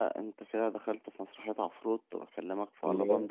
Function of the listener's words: listening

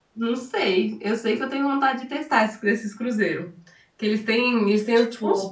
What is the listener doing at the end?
listening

